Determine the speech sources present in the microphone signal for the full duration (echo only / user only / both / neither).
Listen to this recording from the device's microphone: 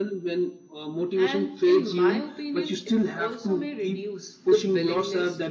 both